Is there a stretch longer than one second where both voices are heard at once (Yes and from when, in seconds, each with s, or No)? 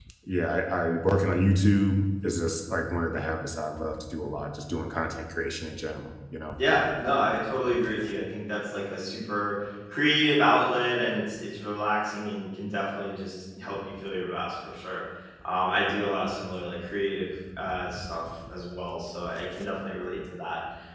No